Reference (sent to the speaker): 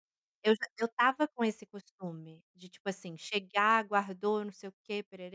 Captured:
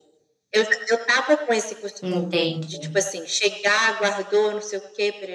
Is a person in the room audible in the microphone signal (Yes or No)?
Yes